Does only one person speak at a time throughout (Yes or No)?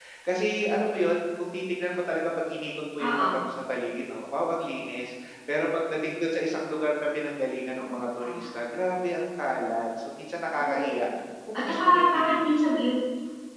No